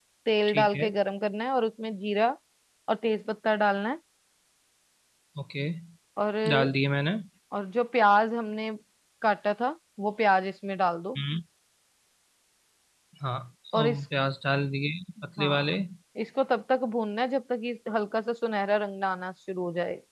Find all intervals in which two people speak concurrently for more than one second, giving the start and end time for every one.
none

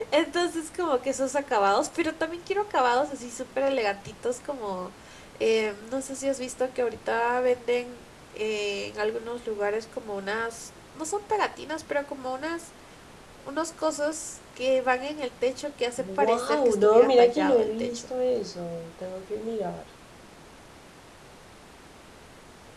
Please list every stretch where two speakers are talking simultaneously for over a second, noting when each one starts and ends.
16.0-18.0

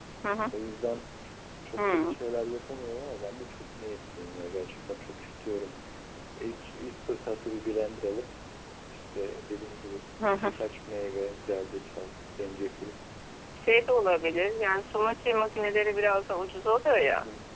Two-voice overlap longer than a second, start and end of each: none

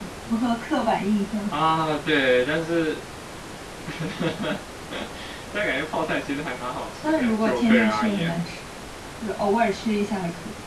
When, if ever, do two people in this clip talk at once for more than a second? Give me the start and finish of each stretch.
7.0-8.3

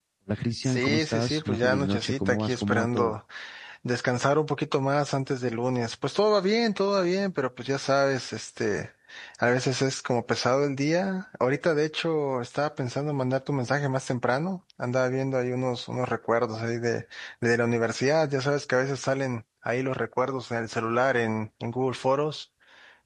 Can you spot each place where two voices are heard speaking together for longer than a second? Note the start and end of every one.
0.6-3.2

